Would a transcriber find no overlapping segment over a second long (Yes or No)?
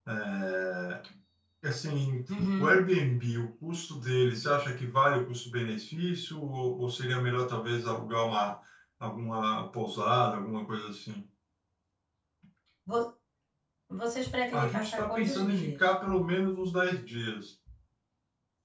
No